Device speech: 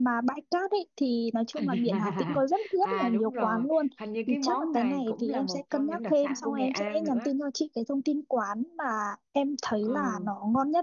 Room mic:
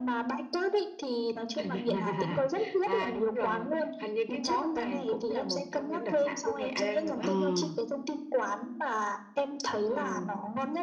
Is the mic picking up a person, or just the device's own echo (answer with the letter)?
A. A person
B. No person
A